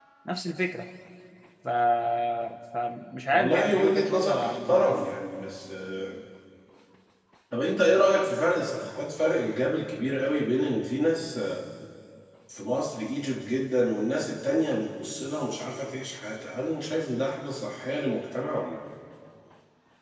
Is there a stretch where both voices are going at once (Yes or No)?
Yes